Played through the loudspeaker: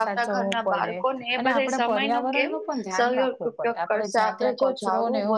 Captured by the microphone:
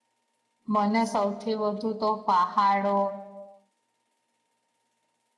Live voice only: મને સૌથી વધુ તો પહાડો,

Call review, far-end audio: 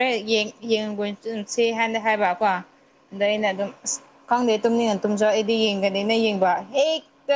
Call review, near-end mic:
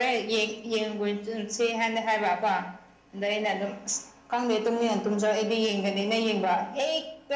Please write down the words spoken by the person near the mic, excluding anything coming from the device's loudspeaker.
none

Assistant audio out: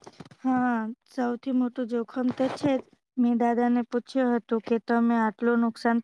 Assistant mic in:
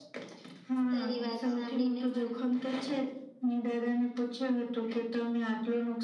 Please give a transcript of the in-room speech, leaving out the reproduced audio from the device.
તારી વાત સાંભળીને મ

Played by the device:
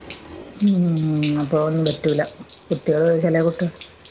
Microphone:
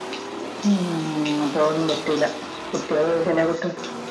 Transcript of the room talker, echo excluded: none

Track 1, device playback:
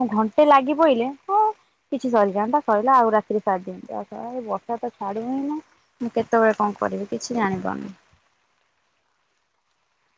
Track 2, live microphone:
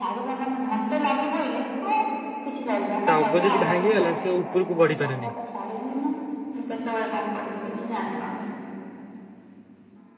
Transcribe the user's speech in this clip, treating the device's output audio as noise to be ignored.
ତା ଅଗ ଯଦି ଭାଙ୍ଗିଗଲା ସେ ଉପରକୁ ବଢ଼ି ପାରେନି।

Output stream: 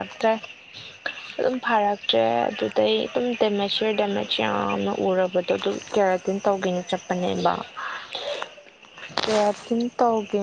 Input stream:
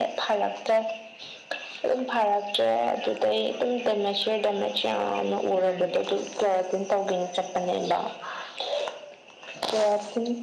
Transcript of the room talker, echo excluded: ꯎꯝ

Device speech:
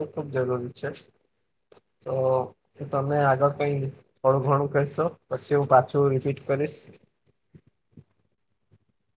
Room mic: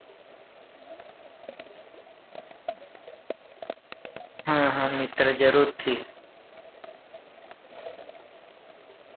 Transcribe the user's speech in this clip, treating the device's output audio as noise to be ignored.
હા, હા, મિત્ર જરૂર થી.

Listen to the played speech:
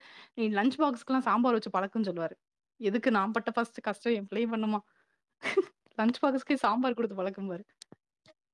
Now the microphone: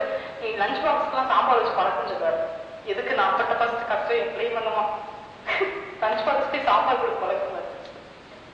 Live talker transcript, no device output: none

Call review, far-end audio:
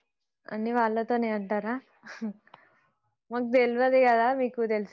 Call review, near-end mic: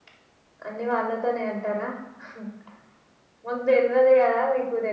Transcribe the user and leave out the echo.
none

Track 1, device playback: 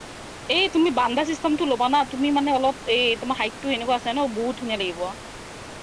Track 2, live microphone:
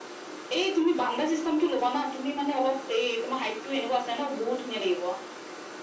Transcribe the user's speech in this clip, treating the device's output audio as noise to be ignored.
none

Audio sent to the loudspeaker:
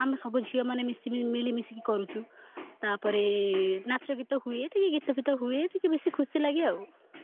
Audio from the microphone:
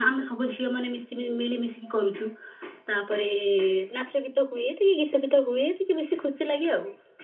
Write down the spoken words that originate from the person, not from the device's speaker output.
none

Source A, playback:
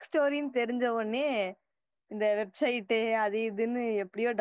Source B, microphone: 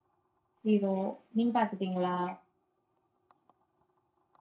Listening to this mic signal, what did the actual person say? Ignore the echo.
ஹீரோ நீங்க பாத்துட்டீங்களா

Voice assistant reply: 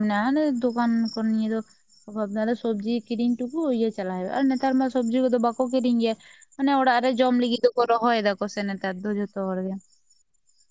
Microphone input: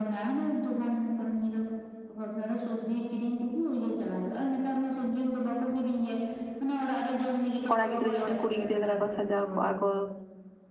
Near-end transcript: ᱠᱚᱲᱟ ᱜᱤᱫᱽᱨᱟᱹ ᱡᱮᱢᱚᱱ ᱠᱩᱲᱤ ᱜᱤᱫᱽᱨᱟᱹ ᱞᱮᱠᱟ ᱠᱚ ᱥᱟᱡᱟᱣ ᱠᱚᱜᱼᱟ ᱠᱚ

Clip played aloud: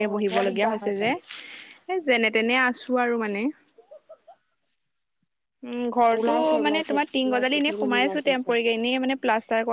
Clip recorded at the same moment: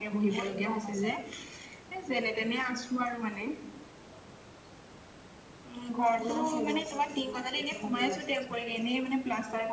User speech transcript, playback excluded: none

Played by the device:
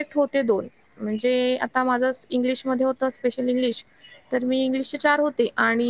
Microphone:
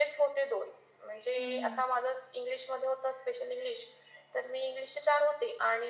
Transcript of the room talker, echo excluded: हम्म

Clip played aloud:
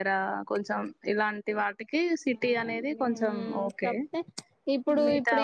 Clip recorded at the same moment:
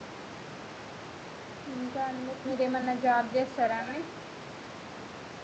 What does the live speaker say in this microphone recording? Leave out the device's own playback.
ఇంకా అండి మీరేమన్నా జాబ్ చేస్తారా అండి

